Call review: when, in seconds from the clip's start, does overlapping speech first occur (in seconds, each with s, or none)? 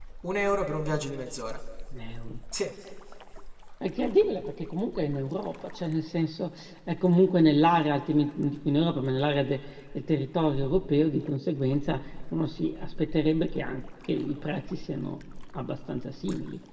none